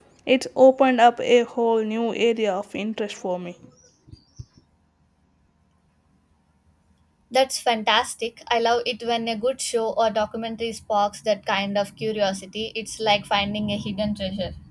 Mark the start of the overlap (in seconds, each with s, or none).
none